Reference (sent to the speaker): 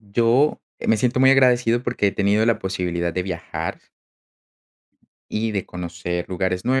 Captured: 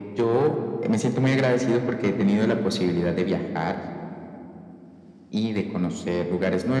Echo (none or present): present